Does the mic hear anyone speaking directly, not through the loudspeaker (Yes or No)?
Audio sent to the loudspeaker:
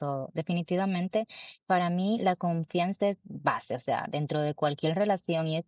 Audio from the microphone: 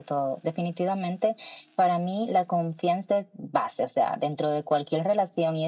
No